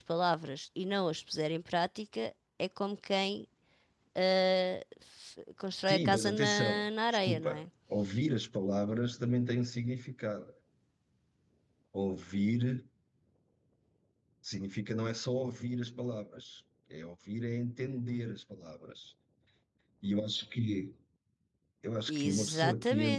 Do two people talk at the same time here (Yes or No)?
Yes